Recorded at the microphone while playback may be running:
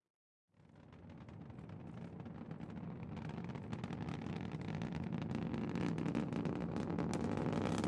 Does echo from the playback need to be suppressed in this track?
No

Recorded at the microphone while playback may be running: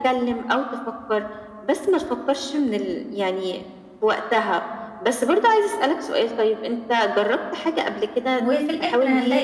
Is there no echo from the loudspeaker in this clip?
No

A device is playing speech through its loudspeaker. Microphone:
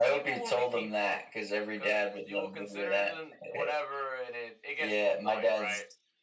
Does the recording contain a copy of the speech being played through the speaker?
Yes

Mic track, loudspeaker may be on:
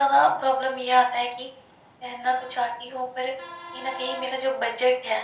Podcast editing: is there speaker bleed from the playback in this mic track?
Yes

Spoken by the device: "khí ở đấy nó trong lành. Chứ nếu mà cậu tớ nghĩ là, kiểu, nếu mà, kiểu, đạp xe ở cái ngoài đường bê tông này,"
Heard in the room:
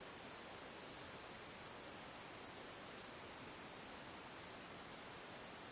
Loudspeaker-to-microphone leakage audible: No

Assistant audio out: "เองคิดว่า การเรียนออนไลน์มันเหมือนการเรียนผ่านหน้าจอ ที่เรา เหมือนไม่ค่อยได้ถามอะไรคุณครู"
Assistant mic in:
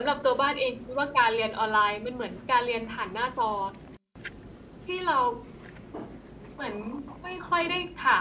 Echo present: Yes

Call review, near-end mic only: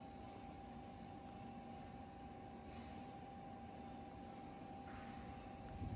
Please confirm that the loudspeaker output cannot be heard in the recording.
Yes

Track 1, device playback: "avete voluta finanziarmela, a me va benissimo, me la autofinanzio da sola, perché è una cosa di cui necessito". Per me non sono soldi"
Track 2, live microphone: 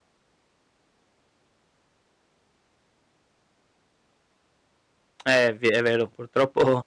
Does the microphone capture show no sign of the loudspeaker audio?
Yes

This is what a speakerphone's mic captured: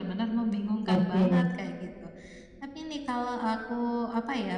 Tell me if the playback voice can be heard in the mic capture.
Yes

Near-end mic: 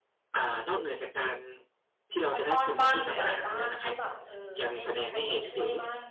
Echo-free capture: No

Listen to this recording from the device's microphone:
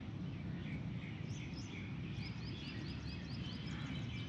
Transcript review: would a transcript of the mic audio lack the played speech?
Yes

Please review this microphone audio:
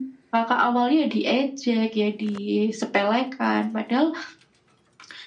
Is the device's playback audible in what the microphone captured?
Yes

